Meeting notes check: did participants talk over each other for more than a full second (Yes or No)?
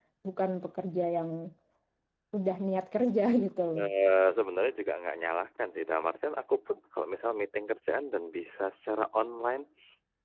No